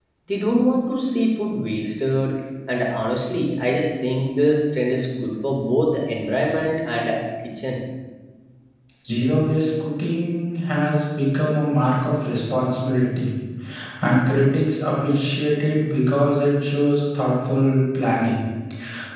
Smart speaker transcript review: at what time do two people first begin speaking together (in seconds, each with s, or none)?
none